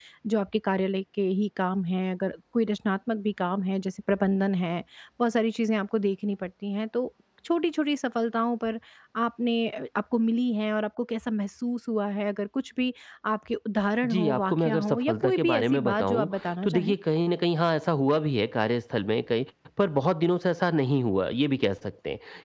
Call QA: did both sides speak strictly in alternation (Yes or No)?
No